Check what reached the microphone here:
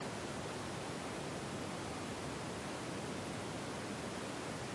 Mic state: neither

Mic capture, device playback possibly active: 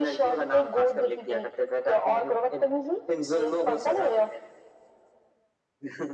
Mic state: echo only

